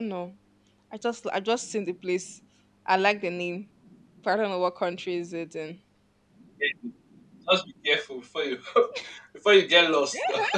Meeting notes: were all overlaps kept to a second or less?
Yes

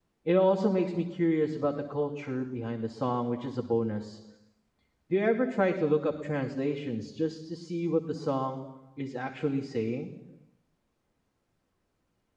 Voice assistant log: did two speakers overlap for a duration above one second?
No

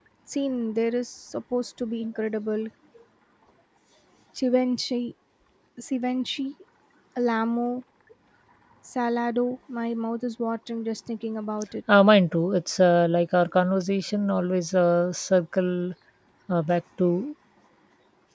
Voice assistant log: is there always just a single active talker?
Yes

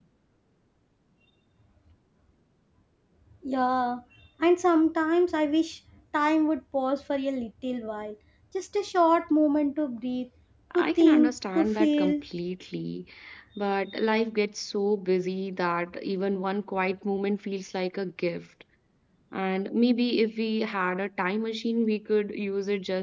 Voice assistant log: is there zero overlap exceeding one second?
No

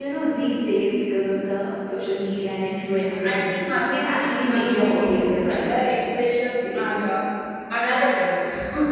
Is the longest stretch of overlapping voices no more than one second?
No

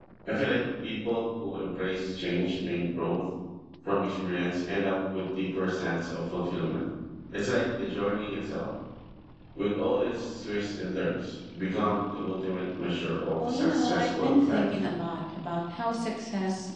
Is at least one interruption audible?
Yes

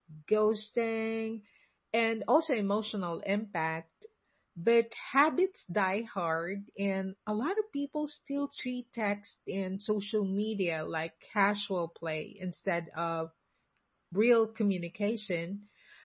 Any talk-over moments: No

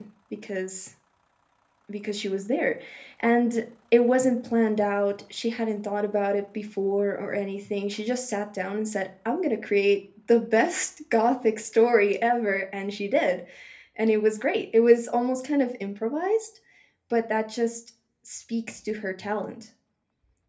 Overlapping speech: No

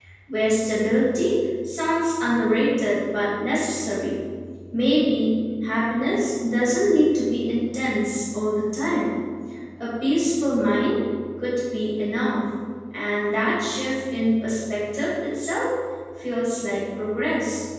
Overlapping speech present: No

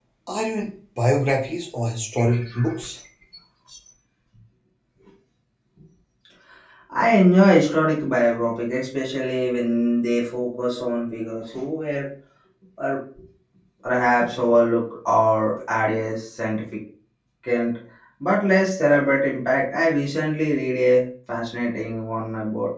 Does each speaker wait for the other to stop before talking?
Yes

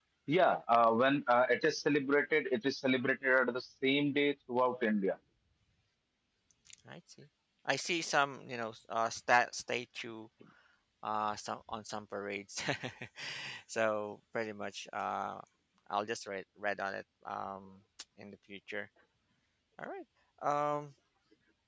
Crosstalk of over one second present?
No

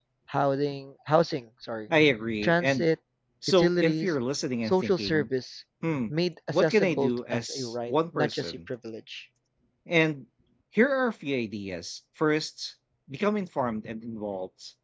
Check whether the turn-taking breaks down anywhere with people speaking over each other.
Yes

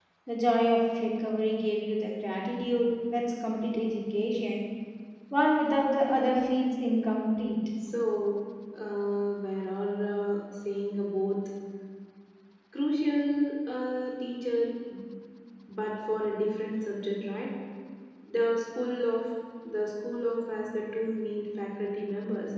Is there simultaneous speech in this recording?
No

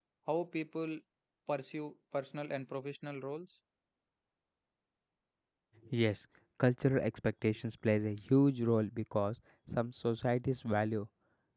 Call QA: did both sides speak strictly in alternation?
Yes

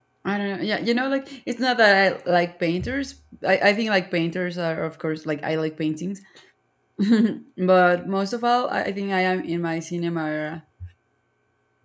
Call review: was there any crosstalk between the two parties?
No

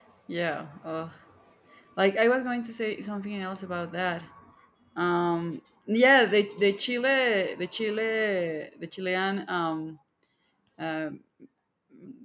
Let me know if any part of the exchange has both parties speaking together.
No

